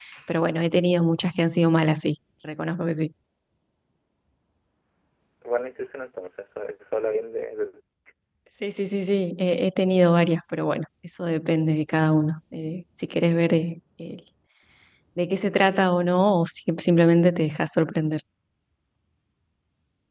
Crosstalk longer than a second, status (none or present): none